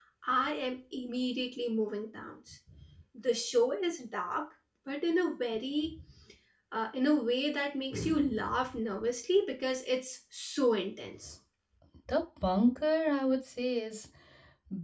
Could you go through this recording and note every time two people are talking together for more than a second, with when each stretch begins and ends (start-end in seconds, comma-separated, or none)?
none